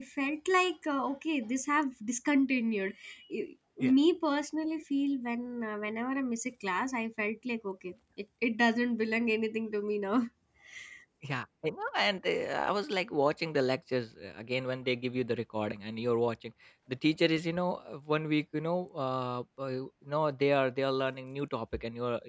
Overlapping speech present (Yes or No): No